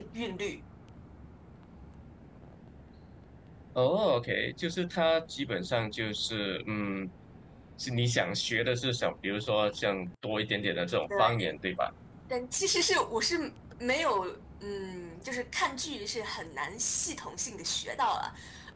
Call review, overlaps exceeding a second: none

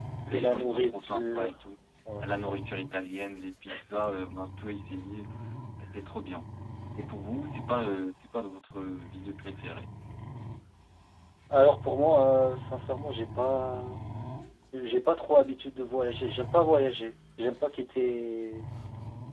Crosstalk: present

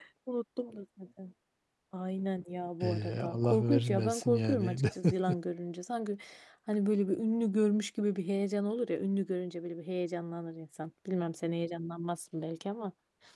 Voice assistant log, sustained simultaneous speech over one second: present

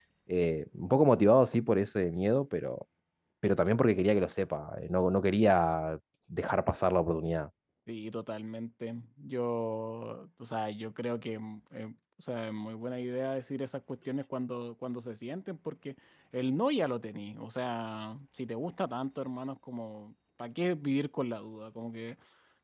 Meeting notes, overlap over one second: none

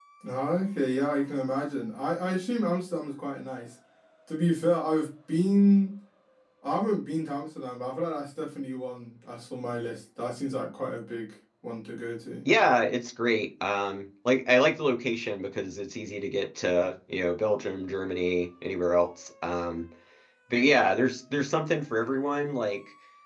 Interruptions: none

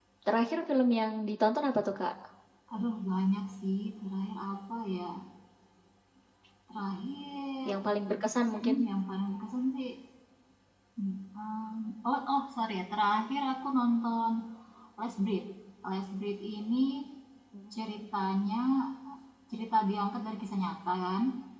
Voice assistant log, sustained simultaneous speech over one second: none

